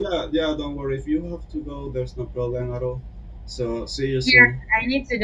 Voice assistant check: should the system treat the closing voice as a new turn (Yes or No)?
Yes